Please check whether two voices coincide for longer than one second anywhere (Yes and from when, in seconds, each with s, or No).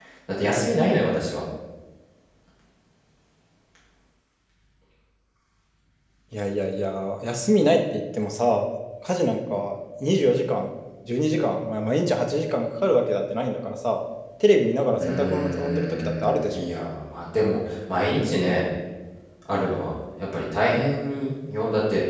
Yes, from 15.0 s